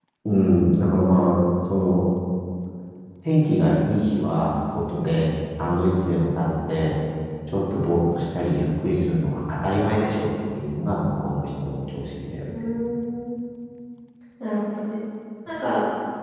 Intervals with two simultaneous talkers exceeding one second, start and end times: none

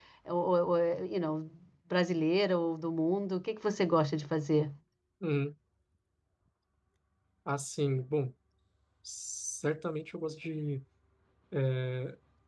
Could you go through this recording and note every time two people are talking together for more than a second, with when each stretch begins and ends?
none

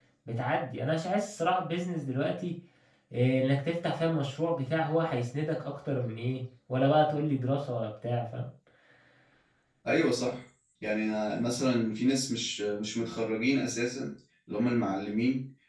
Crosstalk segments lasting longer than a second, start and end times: none

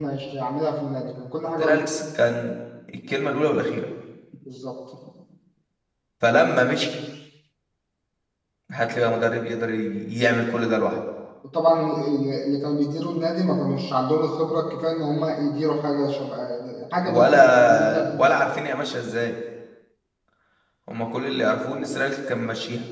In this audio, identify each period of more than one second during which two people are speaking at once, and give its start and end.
17.0-18.4

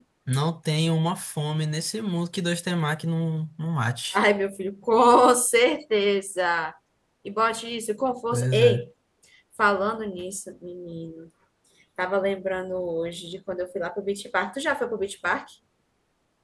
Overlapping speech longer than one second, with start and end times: none

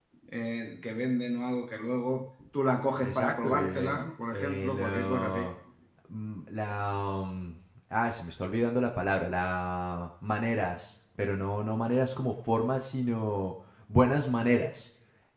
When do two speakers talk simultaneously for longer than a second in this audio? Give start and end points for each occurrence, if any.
3.0-5.4

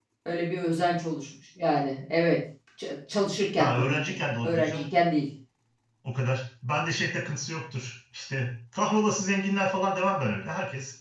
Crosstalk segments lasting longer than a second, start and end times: 3.6-4.9

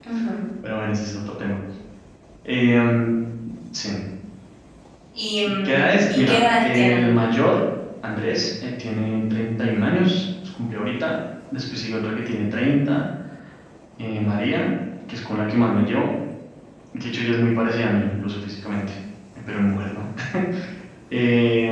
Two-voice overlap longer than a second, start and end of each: 5.6-7.1

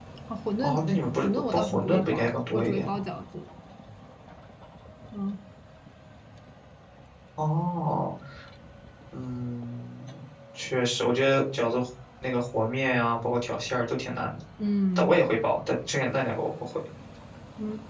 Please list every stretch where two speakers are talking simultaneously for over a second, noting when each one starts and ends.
1.2-3.0

